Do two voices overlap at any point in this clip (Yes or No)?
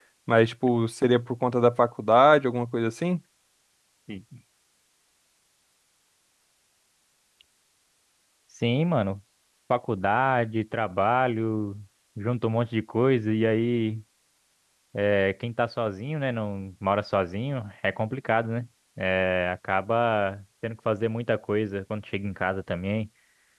No